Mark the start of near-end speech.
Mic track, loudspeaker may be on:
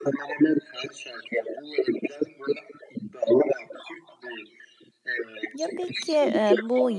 5.5 s

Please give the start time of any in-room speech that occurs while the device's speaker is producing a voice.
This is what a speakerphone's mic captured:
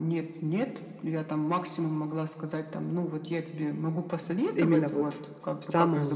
4.5 s

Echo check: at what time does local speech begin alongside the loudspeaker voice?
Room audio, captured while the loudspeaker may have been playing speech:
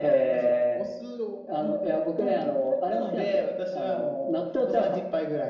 none

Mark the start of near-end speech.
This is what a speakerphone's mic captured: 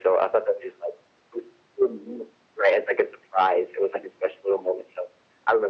none

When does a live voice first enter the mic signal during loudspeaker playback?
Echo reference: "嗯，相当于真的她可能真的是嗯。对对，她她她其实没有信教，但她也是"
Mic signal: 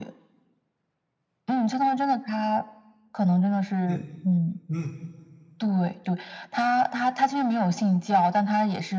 3.9 s

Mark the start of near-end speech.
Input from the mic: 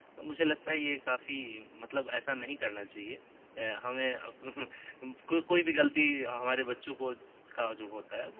none

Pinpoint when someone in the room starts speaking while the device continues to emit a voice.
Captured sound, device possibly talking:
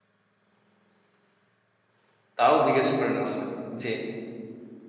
2.4 s

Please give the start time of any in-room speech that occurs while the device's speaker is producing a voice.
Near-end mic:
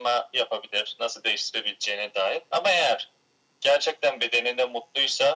none

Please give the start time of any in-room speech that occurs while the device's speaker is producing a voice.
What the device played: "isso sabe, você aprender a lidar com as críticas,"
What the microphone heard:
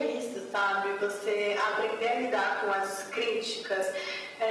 none

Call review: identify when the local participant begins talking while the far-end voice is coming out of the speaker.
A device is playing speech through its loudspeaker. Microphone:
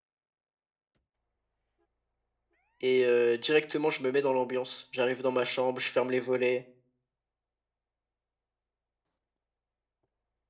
2.8 s

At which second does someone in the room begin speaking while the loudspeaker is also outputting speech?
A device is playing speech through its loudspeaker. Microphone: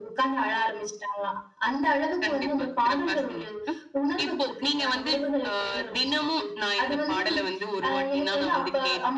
none

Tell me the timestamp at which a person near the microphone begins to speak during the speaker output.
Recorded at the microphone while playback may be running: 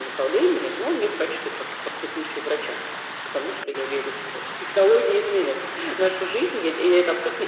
none

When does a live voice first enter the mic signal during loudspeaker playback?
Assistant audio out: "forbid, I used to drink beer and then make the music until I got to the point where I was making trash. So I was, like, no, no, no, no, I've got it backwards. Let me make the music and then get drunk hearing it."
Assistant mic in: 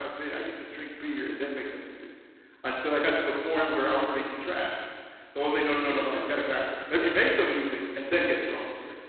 5.8 s

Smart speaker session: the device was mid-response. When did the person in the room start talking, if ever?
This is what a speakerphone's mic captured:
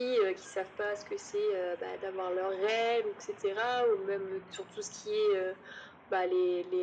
none

